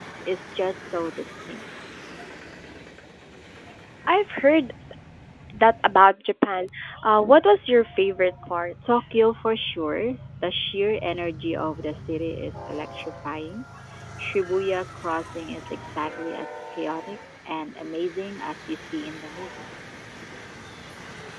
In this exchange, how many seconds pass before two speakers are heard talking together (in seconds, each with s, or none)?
none